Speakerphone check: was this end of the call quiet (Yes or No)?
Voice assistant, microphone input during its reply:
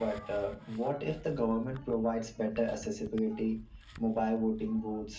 Yes